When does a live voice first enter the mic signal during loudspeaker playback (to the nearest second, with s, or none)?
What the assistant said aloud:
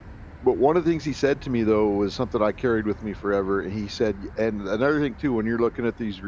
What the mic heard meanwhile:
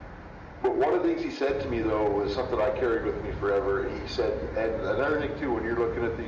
none